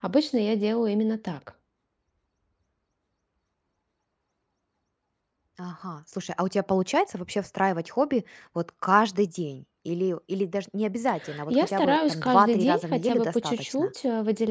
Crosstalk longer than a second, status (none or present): present